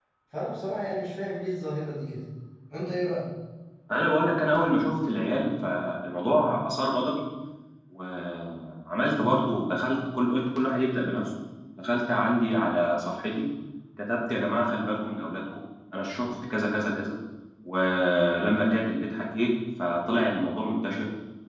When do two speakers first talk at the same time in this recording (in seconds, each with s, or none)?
none